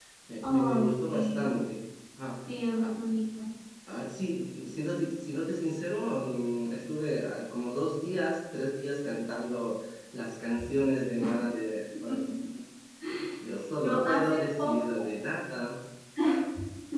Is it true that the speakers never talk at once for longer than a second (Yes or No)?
No